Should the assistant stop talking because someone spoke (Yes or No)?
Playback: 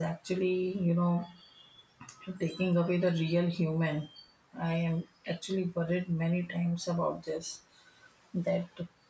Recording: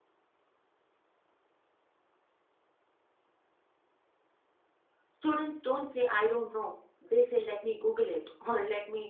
Yes